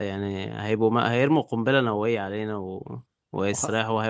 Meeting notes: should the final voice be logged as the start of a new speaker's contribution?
No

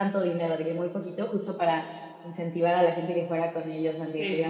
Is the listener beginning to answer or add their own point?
No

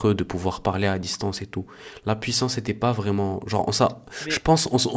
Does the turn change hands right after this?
No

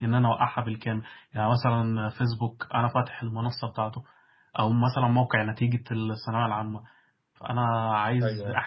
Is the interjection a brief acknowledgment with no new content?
Yes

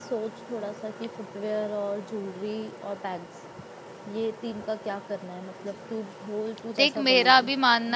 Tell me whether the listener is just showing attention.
No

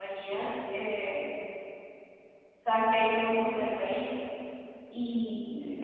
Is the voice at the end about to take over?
No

